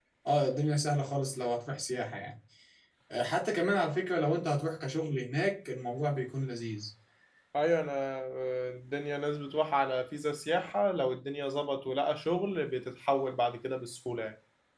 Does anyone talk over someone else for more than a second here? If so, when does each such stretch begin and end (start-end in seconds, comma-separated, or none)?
none